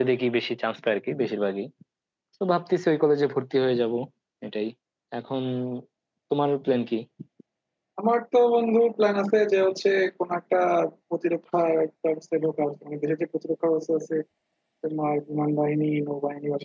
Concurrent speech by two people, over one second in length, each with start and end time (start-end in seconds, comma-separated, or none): none